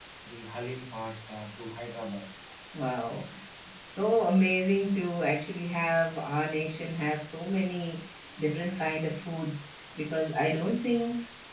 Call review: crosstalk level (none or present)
none